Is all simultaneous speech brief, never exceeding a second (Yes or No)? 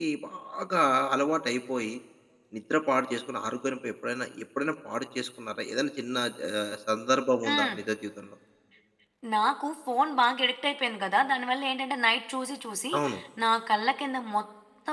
Yes